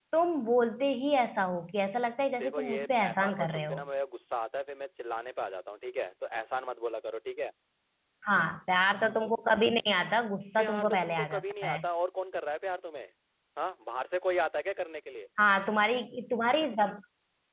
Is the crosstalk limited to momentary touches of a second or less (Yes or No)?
No